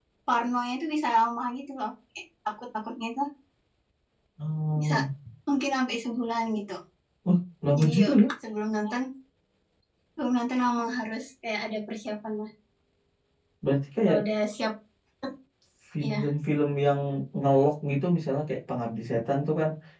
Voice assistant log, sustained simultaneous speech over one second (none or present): none